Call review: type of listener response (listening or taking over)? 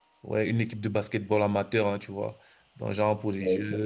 listening